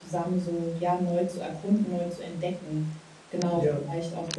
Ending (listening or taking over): listening